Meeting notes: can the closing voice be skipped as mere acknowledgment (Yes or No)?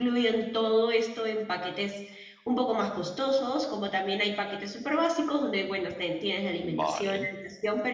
Yes